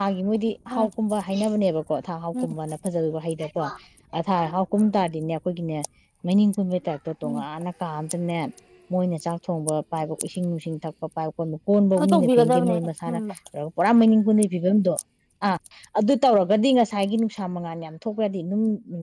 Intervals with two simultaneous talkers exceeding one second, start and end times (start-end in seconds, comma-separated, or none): 12.0-13.2